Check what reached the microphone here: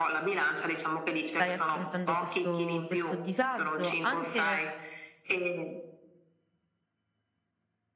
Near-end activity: present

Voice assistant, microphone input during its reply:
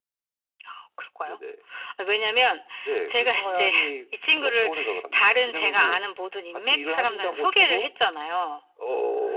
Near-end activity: none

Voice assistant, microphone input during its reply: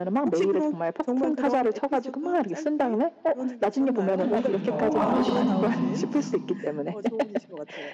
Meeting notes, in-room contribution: present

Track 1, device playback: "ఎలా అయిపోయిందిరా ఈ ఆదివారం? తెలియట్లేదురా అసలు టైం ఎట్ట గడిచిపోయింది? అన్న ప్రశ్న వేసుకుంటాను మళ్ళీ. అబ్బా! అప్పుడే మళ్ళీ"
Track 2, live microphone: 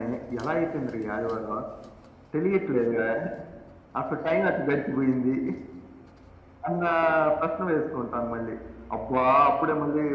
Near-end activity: none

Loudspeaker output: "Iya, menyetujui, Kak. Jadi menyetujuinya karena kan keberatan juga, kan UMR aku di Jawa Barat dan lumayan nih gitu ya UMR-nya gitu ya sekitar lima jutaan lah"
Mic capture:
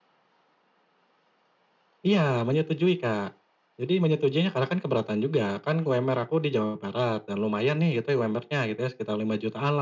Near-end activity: none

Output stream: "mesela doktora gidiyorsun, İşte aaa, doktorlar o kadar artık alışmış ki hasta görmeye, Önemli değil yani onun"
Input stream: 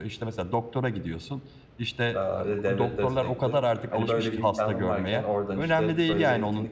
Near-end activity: present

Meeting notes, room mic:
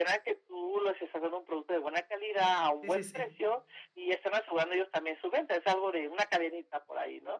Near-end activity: present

